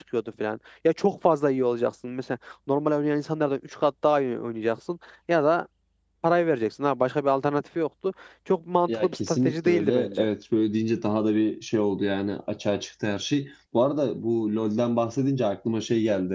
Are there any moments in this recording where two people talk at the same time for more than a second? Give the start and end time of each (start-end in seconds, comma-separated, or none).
8.9-10.3